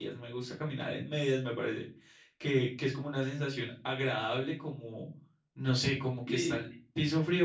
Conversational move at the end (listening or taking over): listening